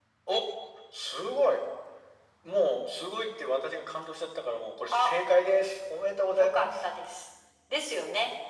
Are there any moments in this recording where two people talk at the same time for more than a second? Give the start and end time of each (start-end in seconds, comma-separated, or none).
none